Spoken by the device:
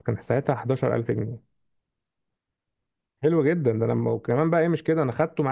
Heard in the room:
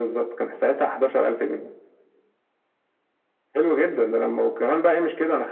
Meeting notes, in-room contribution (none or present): none